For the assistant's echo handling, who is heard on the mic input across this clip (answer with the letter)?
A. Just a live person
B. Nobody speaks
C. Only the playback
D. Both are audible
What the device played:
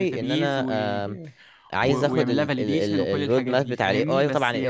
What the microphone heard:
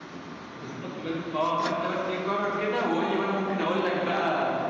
A